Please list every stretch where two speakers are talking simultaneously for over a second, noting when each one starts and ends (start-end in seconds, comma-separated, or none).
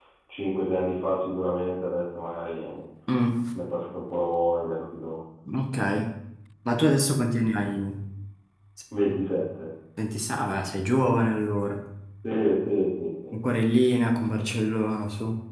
none